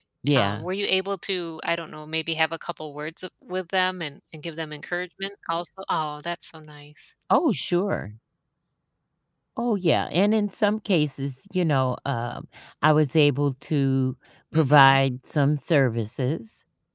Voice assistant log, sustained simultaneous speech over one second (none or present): none